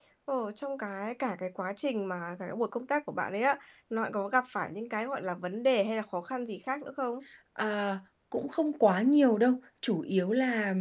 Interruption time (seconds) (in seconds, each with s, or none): none